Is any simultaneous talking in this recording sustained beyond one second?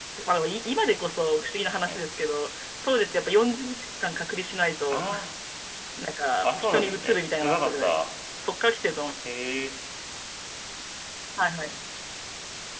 Yes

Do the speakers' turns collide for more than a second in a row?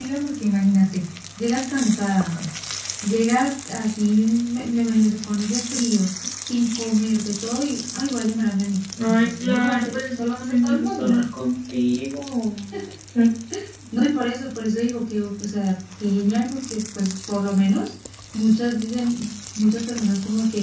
Yes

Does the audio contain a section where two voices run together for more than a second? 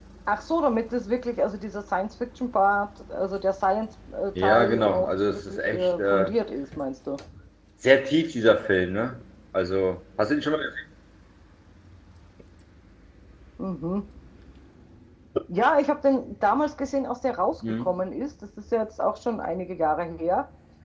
Yes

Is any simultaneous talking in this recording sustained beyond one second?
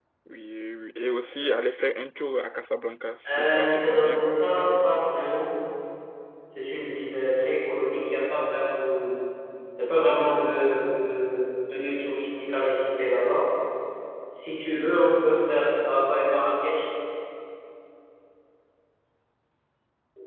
Yes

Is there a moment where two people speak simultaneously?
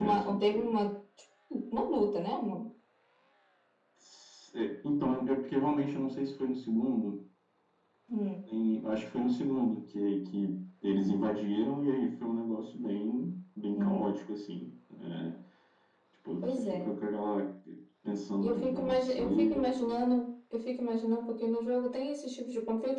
Yes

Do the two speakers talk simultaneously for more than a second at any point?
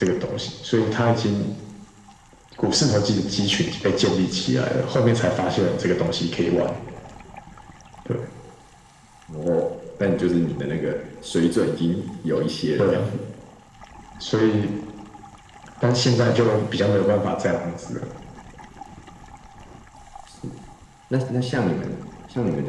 No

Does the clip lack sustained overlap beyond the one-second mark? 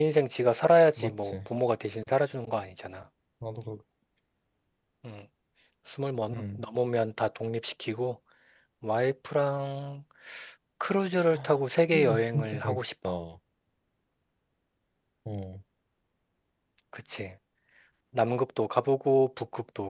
No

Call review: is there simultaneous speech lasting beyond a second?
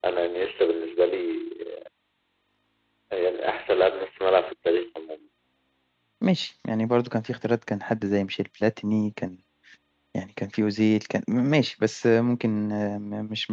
No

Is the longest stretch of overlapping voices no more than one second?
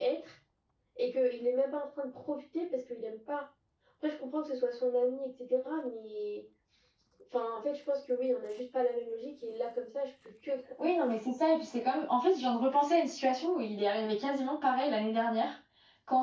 Yes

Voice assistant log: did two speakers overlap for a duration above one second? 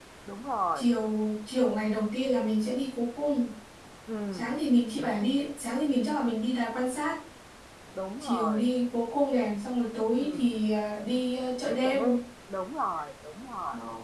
No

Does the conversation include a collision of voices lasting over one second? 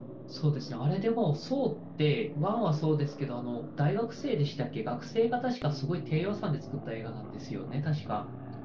No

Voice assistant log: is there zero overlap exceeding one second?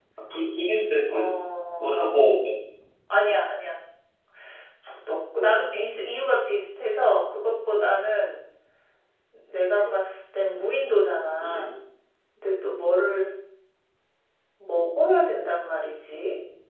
Yes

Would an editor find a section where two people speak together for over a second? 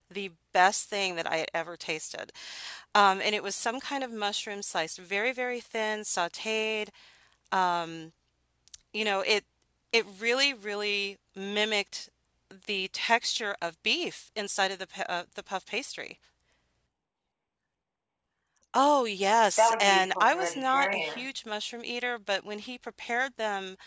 Yes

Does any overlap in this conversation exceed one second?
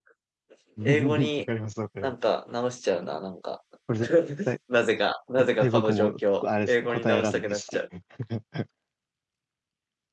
Yes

